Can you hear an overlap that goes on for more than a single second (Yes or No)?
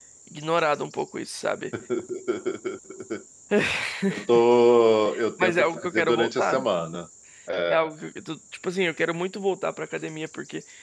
Yes